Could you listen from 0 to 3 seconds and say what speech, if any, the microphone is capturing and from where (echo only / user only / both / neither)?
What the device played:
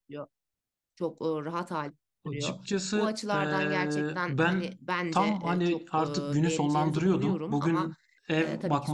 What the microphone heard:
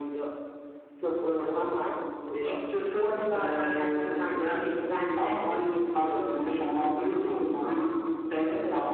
echo only